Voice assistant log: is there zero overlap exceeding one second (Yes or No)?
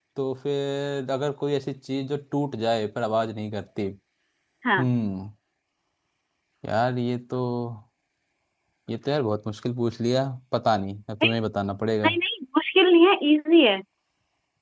Yes